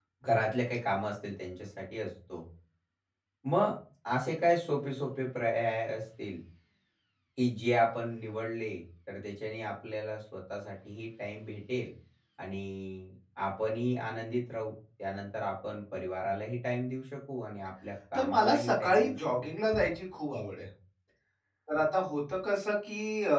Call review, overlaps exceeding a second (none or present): present